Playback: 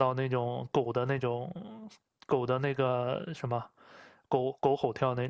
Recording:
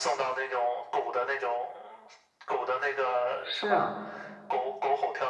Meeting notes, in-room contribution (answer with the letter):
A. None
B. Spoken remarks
B